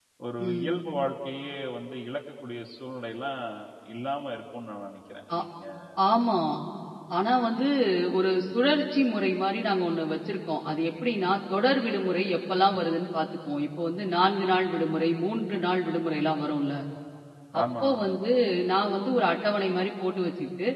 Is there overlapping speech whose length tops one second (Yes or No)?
No